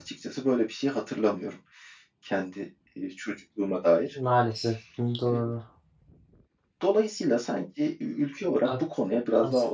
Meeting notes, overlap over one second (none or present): none